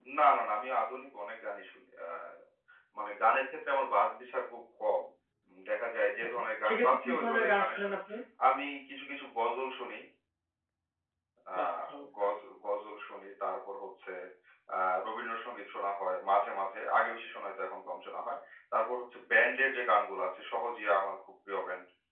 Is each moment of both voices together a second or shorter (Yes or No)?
No